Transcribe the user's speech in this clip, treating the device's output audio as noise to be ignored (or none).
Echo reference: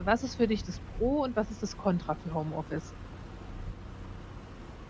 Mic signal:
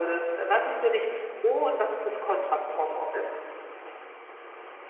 none